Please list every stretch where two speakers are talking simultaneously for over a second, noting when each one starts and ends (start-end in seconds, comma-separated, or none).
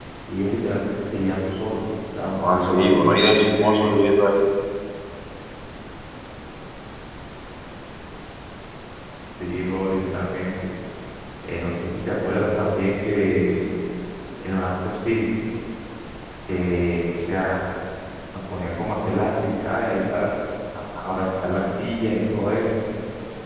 2.4-3.9